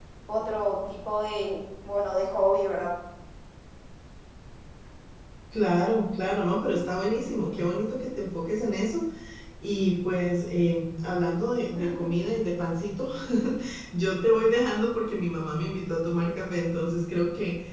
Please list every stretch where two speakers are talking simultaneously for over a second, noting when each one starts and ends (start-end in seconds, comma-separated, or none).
none